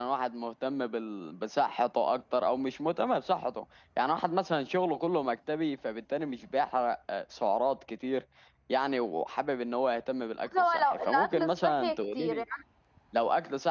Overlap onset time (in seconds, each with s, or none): 10.5 s